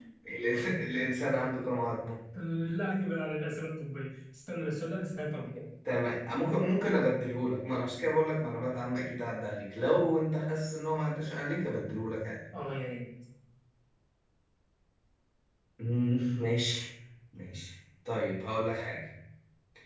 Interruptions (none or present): none